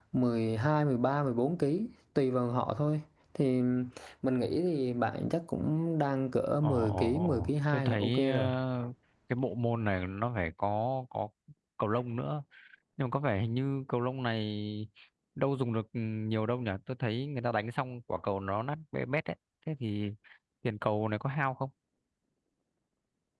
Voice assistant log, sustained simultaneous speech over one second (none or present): present